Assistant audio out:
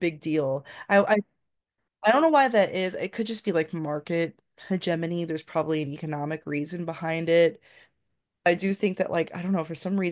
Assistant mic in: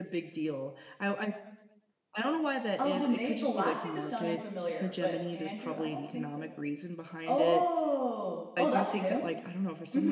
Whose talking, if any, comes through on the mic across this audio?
both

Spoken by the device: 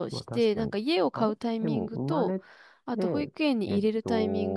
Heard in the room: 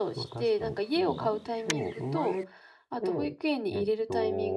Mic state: both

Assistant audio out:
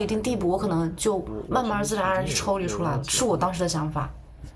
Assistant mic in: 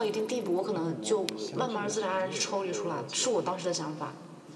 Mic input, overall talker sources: both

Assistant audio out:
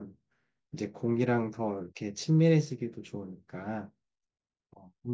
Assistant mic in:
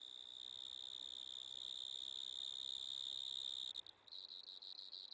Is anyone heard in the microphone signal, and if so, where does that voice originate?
neither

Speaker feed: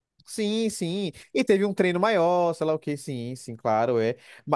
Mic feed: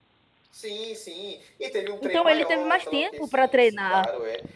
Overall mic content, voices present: both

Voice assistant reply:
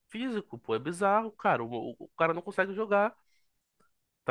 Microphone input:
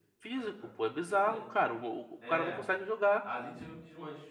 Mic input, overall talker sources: both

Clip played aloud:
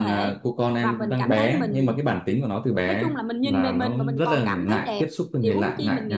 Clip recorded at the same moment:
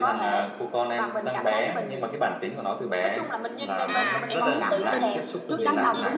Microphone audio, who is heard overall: both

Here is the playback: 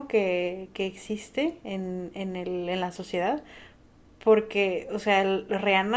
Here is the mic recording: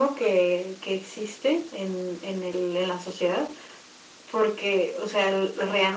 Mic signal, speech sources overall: echo only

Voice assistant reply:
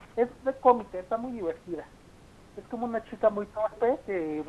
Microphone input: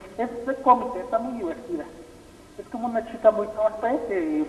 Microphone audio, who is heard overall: echo only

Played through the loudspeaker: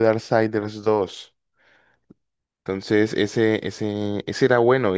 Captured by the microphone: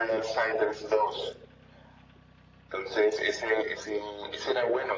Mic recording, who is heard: echo only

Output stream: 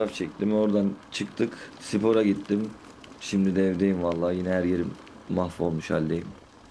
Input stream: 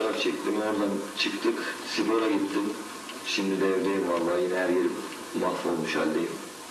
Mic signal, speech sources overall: echo only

